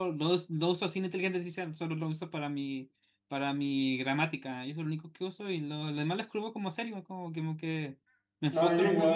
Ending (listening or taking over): taking over